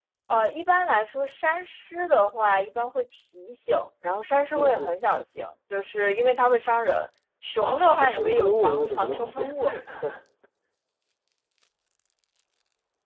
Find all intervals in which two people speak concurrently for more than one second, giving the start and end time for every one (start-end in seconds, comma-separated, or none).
7.6-9.5